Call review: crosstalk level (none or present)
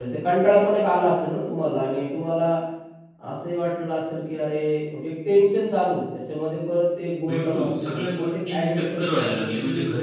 present